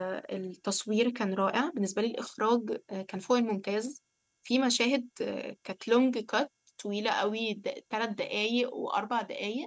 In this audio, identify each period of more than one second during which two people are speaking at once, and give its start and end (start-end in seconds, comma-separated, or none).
none